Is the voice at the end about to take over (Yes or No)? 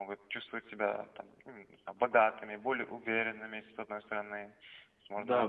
Yes